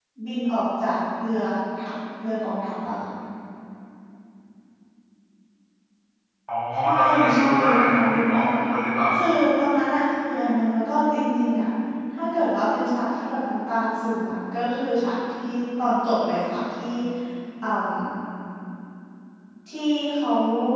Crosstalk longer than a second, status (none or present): present